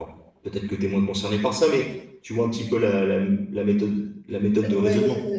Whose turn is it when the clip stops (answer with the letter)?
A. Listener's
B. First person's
A